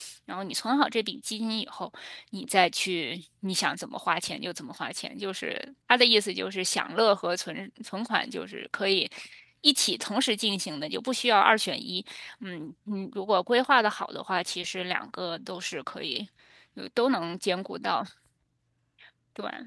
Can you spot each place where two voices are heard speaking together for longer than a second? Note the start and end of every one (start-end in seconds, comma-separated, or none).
none